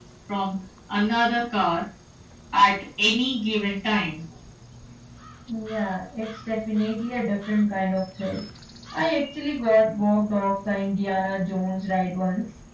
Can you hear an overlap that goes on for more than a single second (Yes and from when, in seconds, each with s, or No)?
No